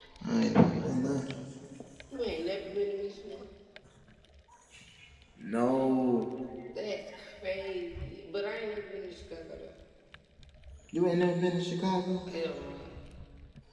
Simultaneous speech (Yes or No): No